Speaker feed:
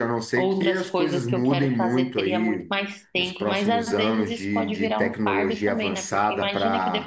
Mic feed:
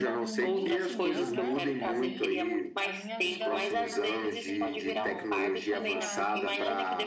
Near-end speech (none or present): present